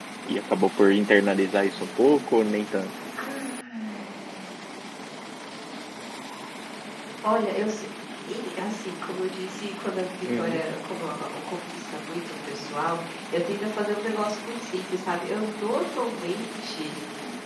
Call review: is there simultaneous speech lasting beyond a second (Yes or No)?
No